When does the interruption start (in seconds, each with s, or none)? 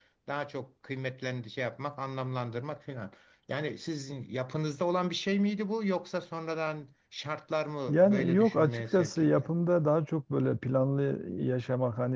7.9 s